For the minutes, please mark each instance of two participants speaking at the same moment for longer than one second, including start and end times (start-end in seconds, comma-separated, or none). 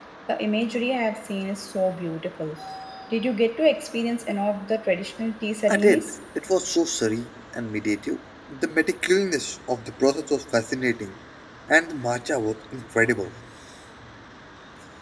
none